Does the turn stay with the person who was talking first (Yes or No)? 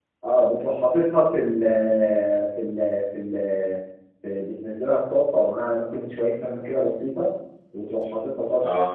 Yes